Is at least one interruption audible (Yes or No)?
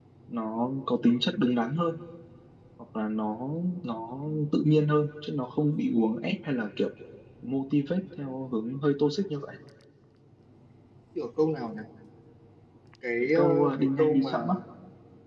Yes